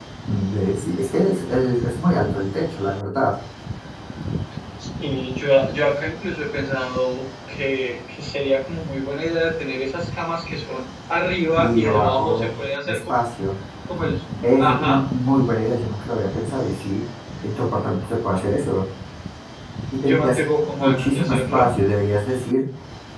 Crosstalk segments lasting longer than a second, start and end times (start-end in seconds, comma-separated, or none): 11.6-13.0, 20.1-21.7